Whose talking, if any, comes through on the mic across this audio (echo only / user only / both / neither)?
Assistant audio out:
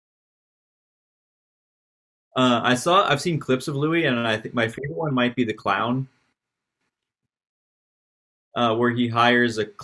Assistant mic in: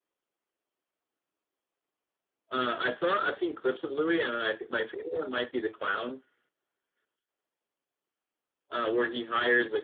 echo only